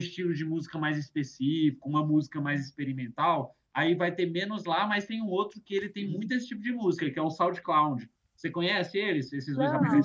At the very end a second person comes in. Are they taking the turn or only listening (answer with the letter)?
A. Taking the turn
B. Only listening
A